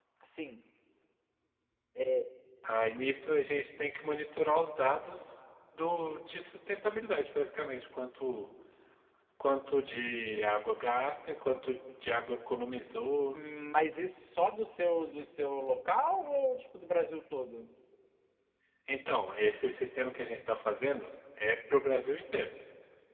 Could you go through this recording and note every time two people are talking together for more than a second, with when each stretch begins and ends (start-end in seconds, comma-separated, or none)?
none